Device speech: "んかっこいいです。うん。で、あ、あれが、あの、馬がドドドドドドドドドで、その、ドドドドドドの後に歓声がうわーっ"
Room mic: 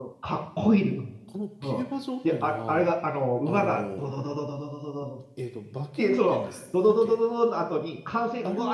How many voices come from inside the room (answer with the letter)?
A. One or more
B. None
A